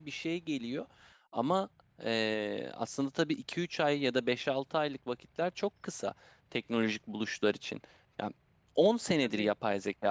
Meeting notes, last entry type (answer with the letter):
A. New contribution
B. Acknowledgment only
B